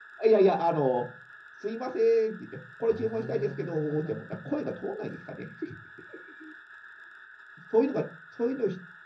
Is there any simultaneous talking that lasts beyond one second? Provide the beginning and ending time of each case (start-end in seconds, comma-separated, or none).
2.9-4.2